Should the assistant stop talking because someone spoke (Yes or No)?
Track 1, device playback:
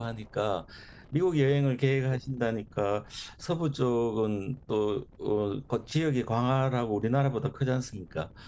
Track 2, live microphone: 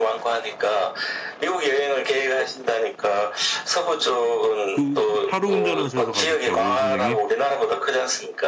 Yes